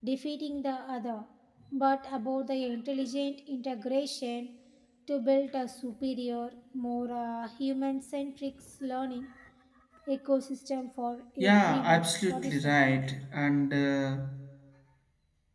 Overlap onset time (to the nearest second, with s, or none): 11 s